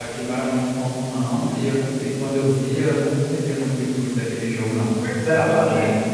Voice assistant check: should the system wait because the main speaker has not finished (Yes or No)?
No